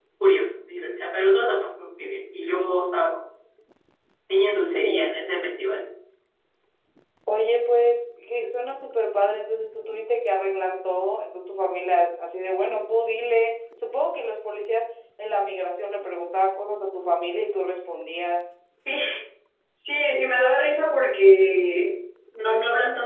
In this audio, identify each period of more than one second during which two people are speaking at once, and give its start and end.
none

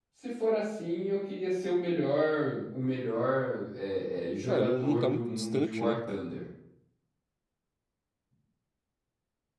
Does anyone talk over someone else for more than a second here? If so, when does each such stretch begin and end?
4.5-6.2

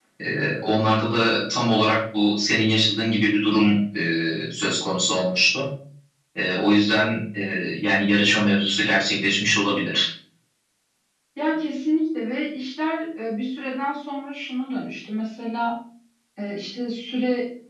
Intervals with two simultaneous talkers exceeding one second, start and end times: none

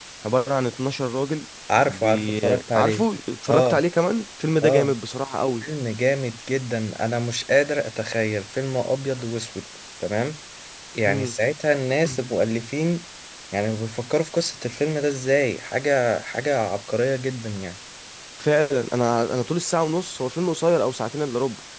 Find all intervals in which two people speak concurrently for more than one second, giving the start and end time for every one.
1.8-3.0

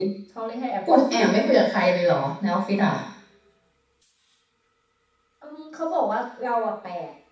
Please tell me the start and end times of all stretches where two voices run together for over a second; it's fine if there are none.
none

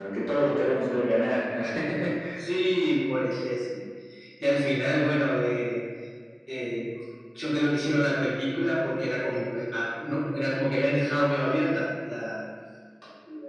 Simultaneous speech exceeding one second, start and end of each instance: none

